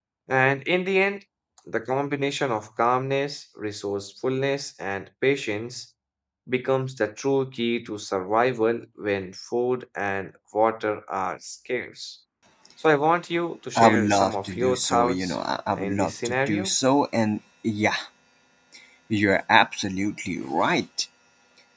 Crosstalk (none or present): present